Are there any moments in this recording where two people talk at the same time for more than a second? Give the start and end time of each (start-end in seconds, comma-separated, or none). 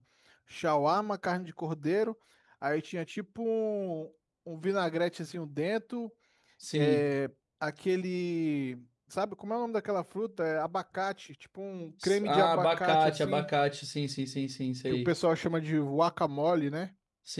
12.2-13.5